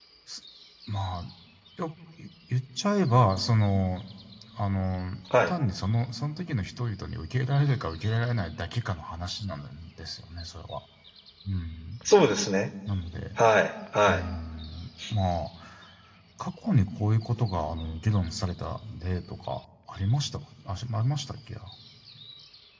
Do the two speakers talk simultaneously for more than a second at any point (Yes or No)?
No